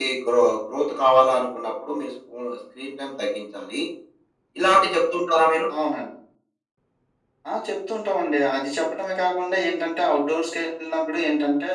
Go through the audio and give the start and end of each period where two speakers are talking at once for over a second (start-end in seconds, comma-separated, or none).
none